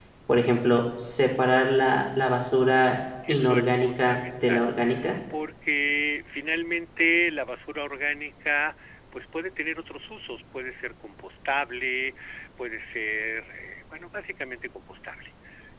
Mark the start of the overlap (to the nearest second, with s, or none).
3 s